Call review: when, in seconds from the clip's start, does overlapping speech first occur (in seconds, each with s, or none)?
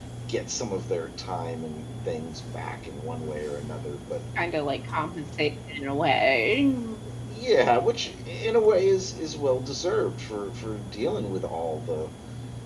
none